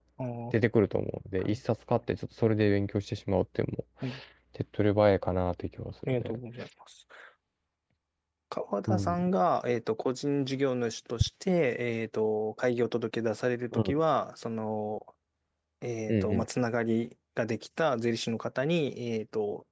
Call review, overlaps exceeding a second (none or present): none